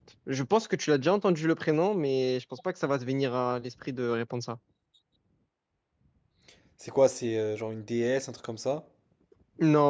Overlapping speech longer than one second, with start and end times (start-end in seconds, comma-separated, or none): none